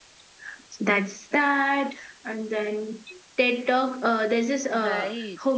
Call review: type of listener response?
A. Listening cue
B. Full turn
A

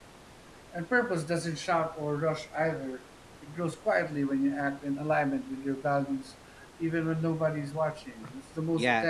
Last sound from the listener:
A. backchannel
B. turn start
B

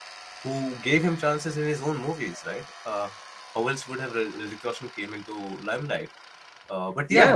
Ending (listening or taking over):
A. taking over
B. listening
A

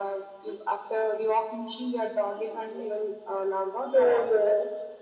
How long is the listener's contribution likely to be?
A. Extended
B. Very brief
A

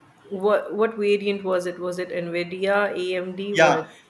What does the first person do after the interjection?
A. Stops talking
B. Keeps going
A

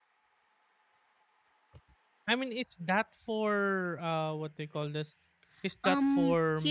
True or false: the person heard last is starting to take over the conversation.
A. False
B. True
B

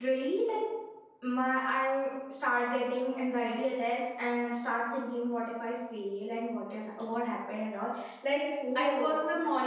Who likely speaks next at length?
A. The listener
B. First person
B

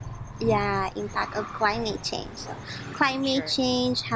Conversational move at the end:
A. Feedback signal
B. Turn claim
A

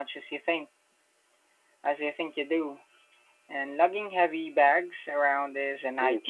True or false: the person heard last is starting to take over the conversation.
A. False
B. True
B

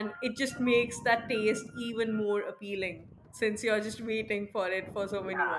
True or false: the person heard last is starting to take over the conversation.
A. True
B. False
A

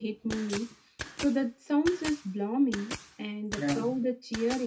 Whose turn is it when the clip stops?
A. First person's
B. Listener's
A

